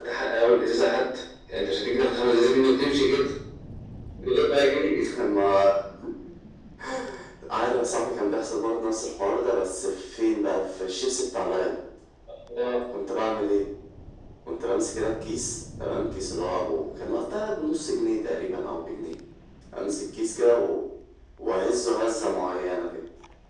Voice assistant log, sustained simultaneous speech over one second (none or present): none